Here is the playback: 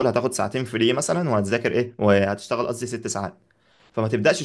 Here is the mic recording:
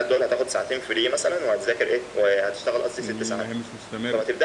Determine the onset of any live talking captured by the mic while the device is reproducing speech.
3.0 s

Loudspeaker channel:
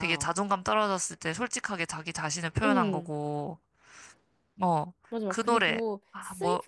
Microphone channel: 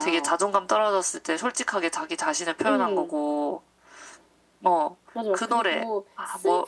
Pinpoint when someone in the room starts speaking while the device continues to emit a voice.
none

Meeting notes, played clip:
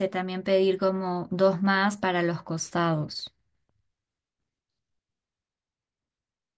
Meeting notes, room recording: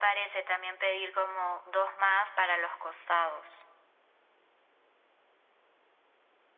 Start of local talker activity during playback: none

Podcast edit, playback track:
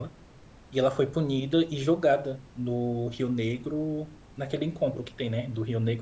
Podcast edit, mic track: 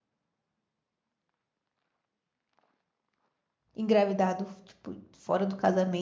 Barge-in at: 3.7 s

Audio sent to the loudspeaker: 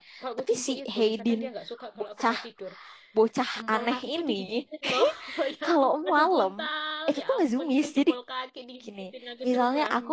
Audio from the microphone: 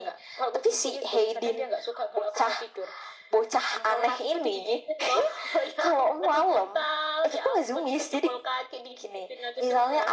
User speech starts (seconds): none

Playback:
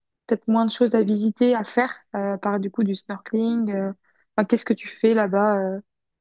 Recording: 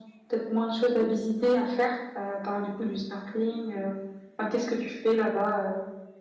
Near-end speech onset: none

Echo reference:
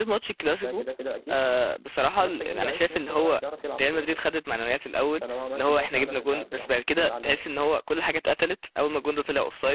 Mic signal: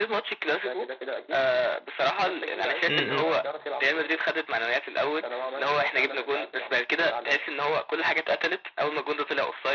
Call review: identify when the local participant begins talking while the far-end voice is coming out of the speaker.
2.9 s

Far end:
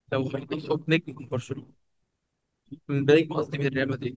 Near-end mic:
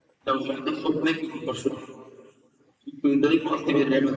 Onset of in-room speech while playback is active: none

